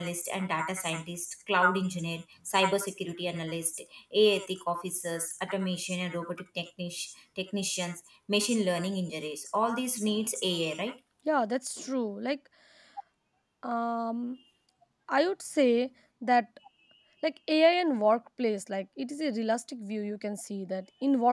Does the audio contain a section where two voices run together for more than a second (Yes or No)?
No